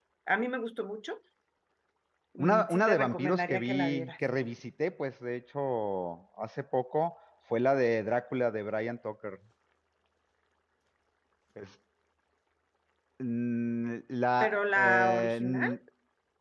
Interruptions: present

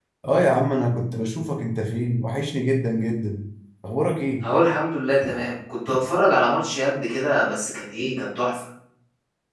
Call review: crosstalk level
none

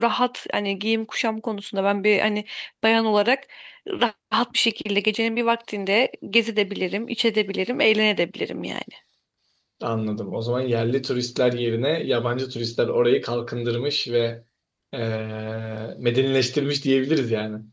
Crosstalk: none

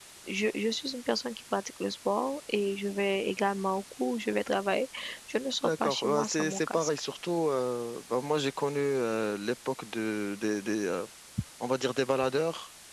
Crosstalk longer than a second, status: present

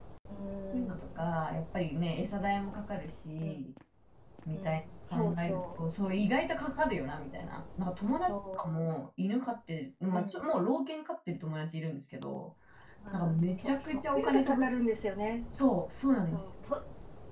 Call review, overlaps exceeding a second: present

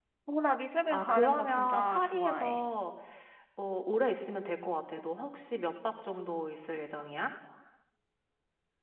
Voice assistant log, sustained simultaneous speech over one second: present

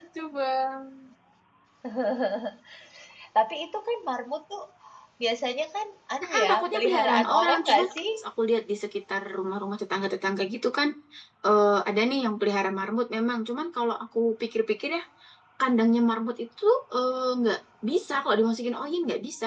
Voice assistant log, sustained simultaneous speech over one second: present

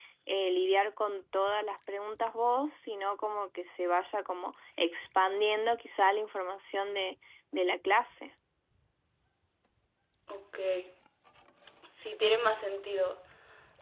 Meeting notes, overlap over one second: none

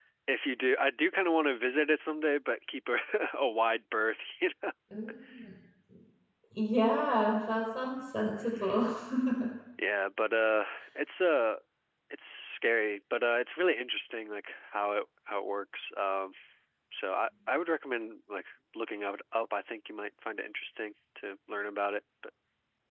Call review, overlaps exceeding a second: none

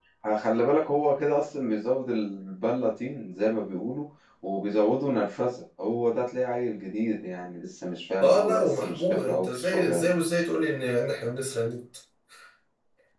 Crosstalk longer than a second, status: present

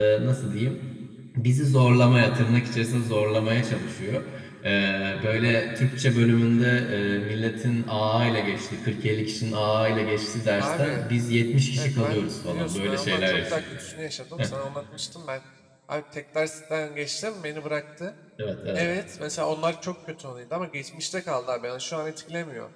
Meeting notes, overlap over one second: present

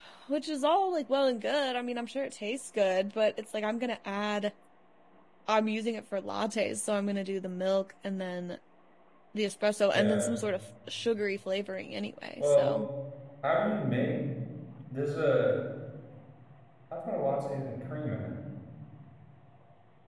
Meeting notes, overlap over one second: none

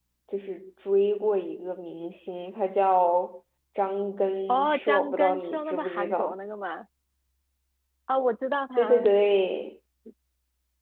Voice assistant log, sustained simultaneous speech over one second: present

